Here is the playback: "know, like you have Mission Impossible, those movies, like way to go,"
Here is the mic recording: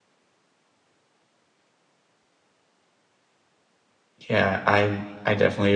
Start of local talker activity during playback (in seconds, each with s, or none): 4.3 s